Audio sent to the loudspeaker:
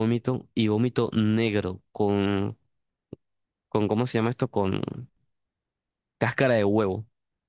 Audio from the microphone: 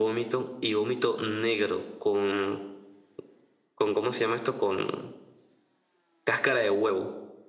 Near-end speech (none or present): none